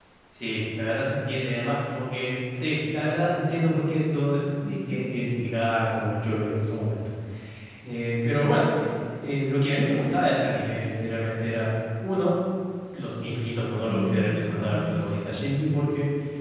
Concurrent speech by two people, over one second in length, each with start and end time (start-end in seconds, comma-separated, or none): 13.8-15.2